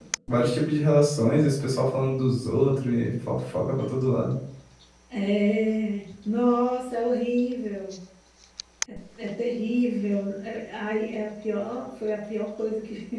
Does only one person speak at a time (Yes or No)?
Yes